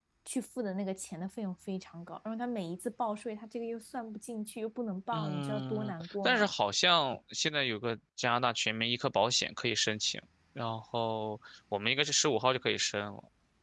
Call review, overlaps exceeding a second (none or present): present